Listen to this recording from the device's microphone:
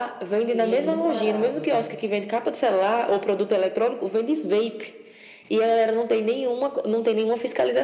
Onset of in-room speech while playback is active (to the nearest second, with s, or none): 0 s